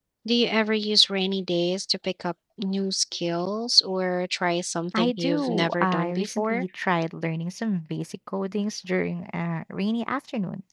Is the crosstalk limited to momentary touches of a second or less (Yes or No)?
No